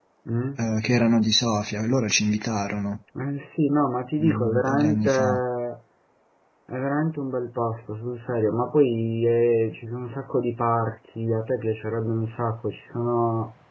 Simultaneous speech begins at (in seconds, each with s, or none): 4.2 s